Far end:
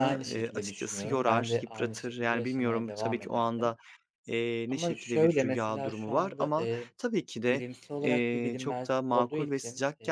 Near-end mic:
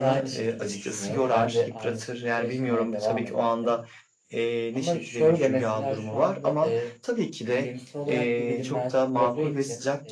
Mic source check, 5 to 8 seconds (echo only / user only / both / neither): echo only